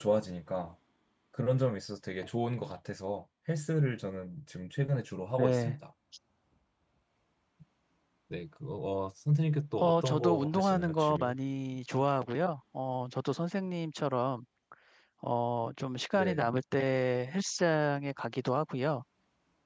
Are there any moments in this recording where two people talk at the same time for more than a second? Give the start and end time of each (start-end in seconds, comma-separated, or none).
9.8-11.3